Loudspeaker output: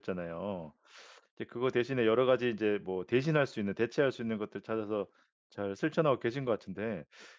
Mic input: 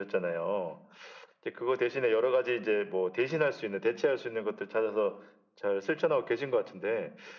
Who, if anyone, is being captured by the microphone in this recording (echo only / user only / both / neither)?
echo only